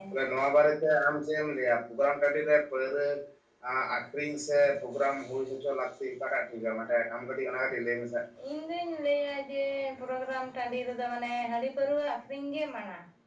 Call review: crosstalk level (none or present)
none